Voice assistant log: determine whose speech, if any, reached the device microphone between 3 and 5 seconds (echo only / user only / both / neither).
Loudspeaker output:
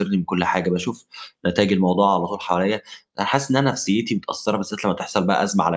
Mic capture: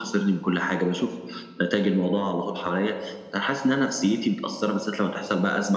echo only